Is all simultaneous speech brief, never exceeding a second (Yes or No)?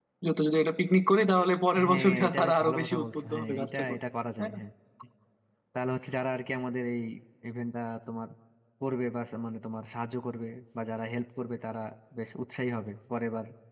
No